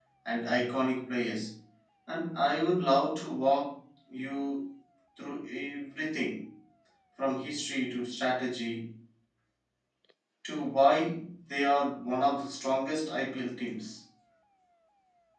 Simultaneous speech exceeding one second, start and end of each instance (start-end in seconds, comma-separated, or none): none